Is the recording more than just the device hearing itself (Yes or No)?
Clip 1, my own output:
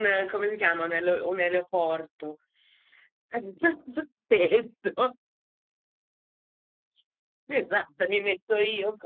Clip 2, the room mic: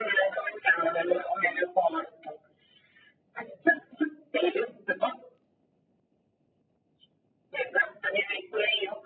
No